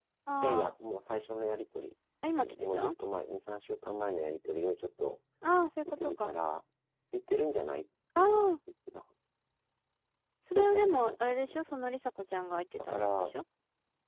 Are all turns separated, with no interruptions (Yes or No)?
No